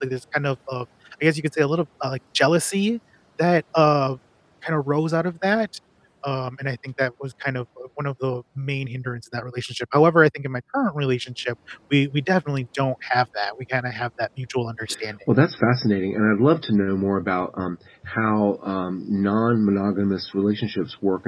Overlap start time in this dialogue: none

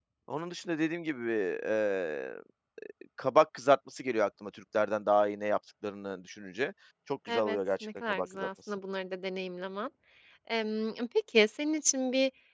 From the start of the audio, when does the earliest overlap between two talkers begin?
7.3 s

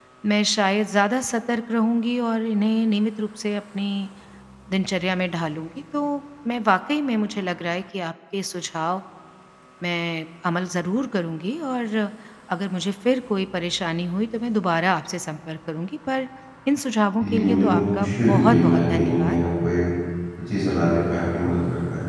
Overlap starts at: 17.2 s

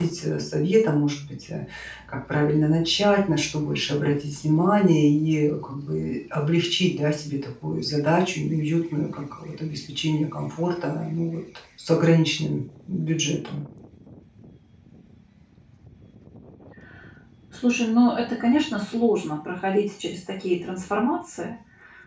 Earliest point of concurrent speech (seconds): none

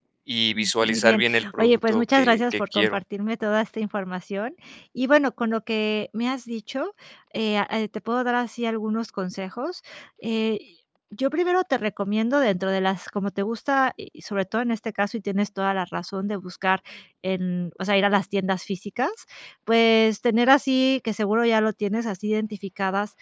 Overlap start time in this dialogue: 0.6 s

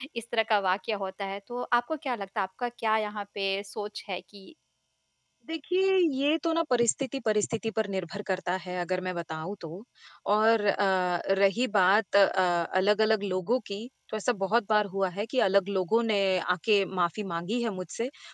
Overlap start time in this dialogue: none

